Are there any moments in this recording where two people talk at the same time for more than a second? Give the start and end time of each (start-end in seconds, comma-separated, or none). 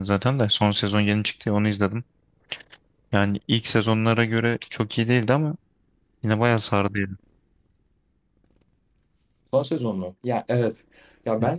none